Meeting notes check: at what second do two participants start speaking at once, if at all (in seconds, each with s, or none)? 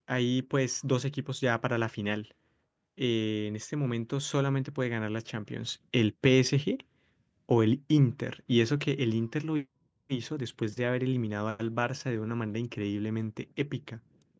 none